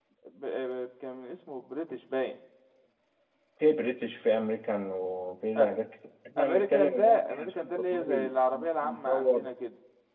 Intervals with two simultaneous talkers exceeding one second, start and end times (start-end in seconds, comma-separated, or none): 6.4-9.5